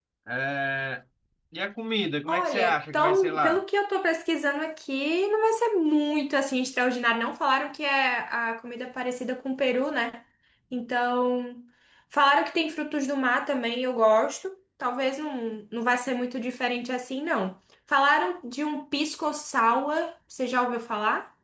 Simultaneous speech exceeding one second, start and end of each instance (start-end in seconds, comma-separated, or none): 2.3-3.6